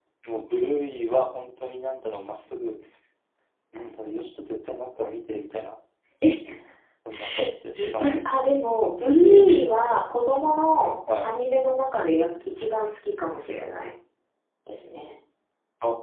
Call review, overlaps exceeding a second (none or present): none